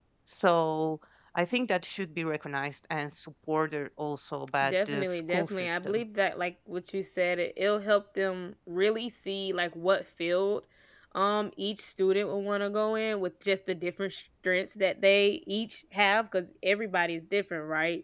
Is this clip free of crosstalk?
No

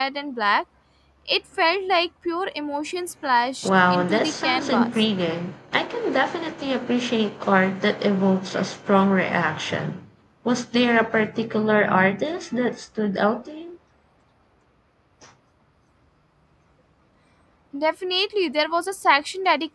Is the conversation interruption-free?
No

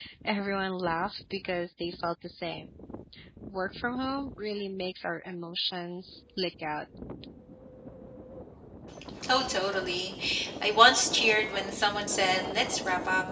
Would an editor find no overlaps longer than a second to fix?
Yes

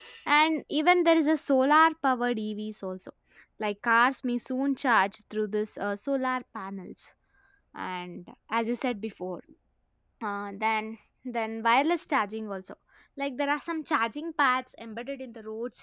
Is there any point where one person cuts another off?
No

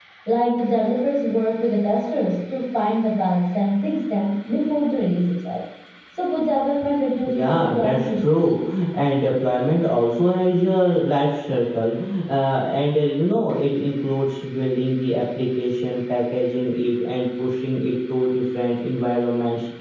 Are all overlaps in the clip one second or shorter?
No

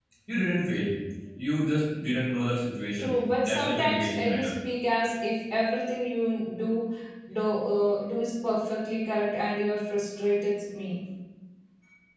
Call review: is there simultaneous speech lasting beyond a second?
Yes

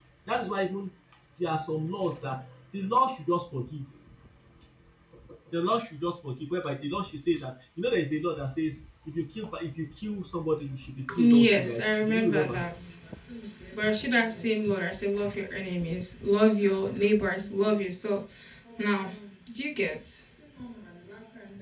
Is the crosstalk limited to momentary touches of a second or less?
No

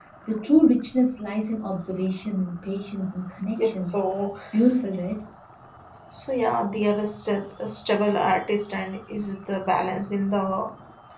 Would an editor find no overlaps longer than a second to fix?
Yes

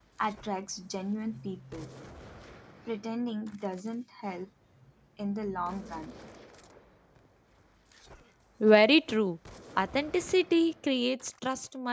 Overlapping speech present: No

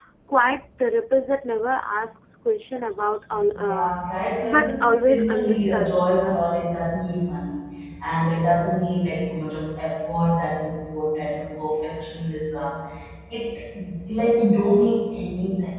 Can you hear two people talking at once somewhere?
Yes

